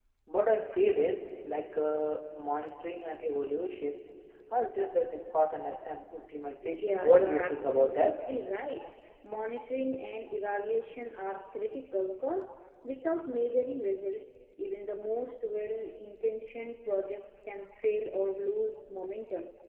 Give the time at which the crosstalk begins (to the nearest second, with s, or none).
7 s